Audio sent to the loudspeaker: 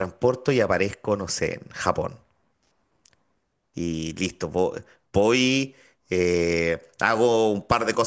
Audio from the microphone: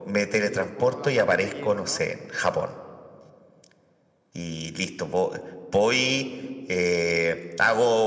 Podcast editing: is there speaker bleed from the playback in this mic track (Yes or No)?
Yes